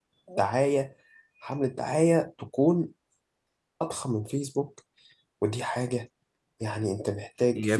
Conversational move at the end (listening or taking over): taking over